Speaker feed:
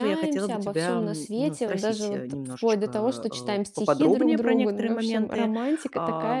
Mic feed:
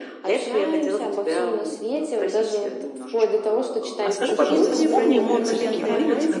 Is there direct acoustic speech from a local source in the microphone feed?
Yes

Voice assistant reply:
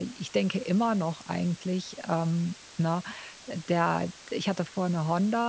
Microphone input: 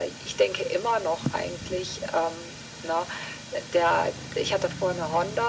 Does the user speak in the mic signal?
No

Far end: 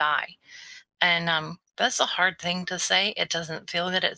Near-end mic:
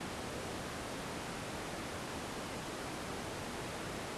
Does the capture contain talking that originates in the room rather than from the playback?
No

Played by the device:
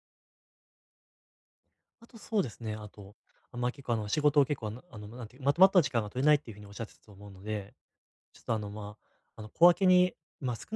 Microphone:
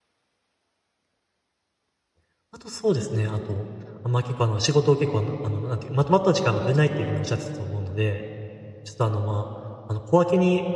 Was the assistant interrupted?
No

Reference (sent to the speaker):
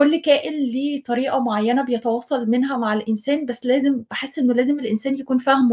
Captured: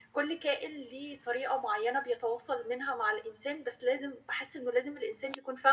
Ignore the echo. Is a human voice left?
No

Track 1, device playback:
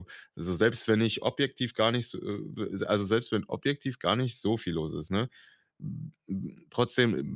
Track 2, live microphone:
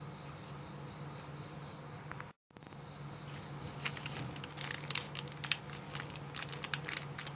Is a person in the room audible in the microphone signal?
No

